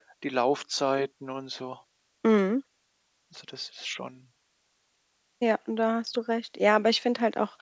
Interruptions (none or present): none